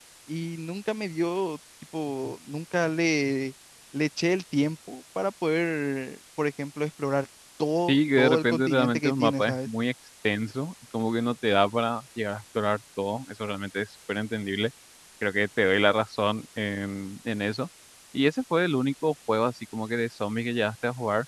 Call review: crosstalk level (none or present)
present